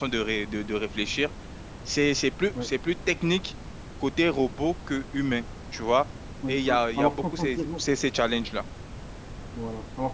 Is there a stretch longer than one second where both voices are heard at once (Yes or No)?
Yes